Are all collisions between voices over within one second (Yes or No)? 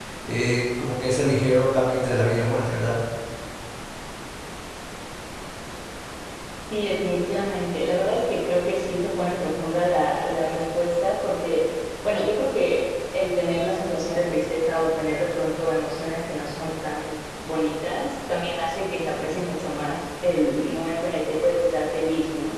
Yes